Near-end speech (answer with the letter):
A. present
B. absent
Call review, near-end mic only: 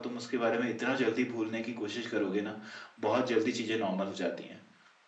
B